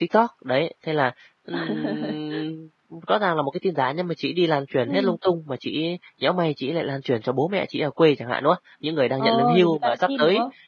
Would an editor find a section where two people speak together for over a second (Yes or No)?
Yes